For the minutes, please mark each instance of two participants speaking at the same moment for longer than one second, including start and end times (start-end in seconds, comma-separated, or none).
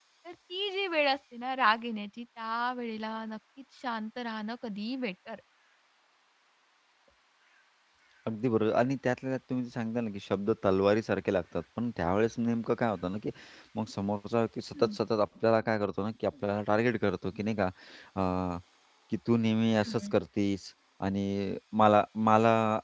none